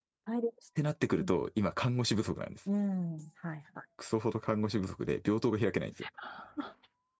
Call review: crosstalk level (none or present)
none